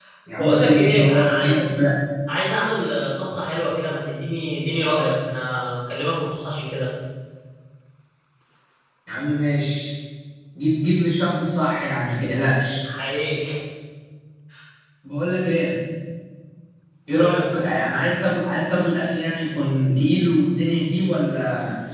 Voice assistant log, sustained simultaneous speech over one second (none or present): present